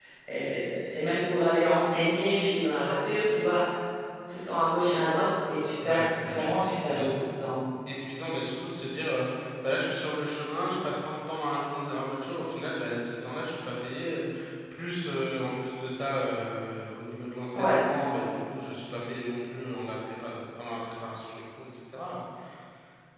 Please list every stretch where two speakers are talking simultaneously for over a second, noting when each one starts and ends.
5.8-7.2

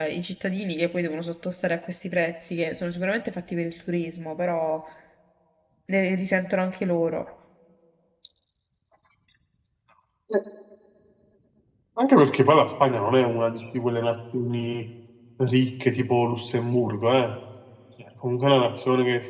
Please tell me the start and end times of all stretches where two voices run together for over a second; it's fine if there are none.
none

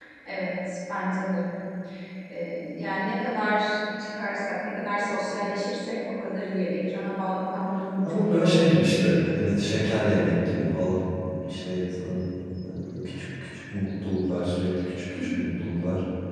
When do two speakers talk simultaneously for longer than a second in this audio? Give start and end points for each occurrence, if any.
8.1-9.4

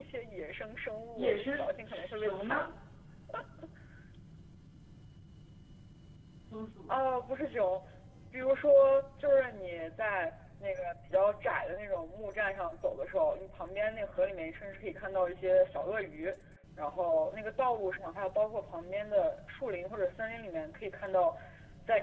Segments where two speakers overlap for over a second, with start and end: 1.2-2.7

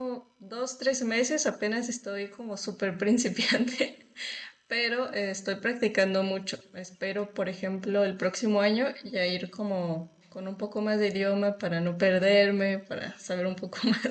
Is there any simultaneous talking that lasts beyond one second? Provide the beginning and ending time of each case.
none

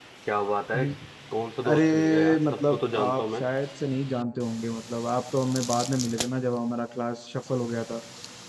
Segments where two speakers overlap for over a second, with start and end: 1.7-3.4

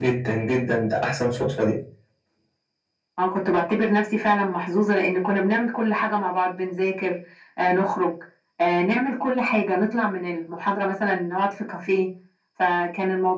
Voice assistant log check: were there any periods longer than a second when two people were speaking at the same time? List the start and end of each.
none

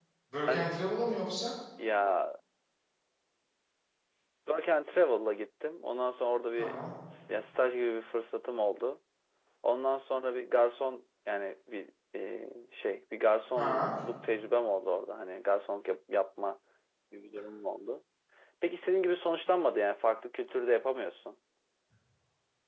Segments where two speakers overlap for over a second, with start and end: none

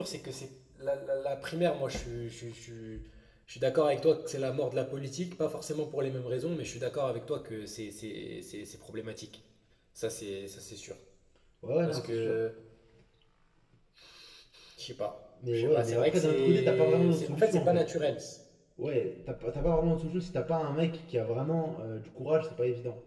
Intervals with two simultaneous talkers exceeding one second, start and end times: 15.5-17.8

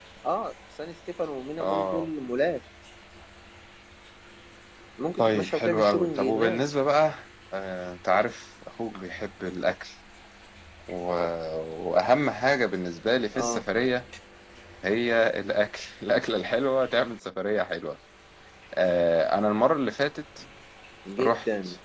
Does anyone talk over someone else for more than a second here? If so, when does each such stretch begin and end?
5.2-6.6

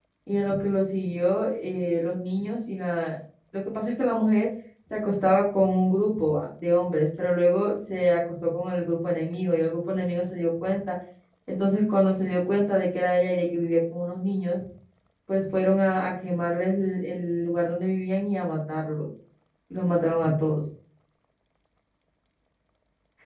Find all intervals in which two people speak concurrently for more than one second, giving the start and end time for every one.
none

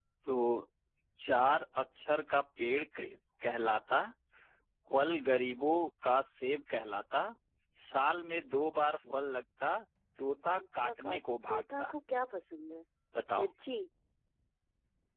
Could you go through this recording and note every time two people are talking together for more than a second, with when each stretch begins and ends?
10.6-11.9

